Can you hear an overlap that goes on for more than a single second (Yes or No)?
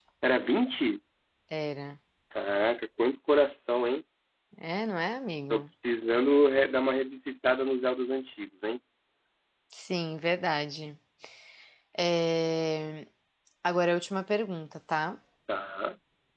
No